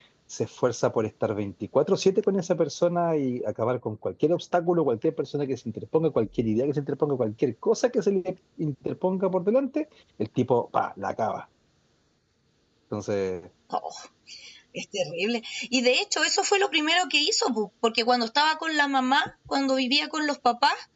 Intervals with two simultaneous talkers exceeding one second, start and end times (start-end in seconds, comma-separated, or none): none